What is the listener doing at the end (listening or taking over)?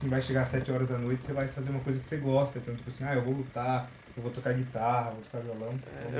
taking over